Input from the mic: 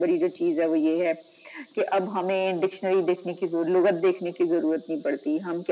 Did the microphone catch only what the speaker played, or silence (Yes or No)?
Yes